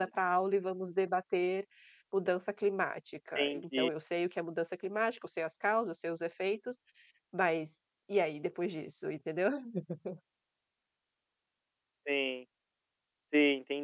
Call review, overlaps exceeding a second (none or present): none